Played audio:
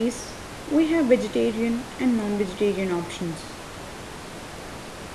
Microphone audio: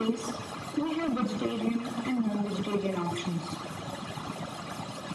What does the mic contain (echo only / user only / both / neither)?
echo only